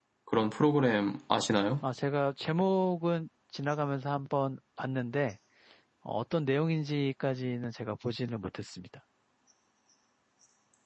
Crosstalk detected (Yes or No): No